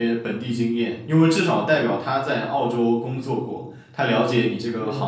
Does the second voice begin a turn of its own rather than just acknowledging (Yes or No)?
No